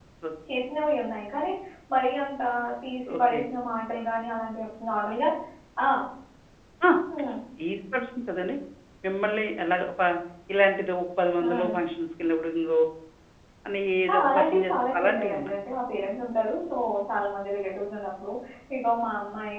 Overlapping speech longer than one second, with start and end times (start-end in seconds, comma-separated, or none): 14.1-15.5